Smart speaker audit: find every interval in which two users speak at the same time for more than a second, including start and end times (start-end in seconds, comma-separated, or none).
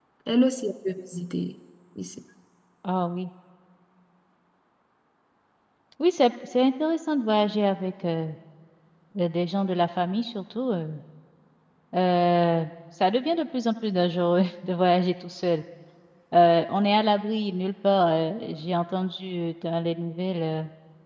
none